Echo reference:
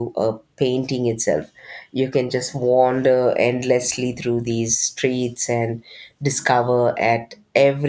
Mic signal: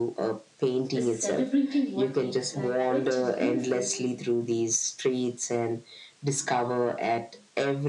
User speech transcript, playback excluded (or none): the celebrating what makes life rich and beautiful.